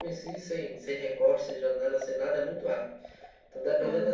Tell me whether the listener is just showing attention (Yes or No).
Yes